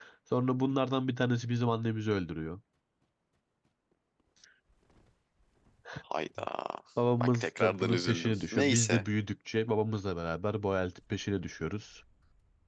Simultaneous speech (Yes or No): Yes